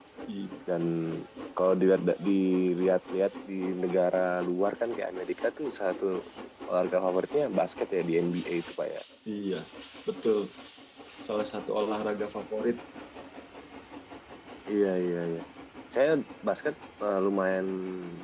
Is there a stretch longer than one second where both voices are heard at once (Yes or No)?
No